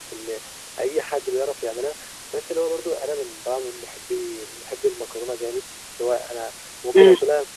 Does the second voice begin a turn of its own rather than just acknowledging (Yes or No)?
No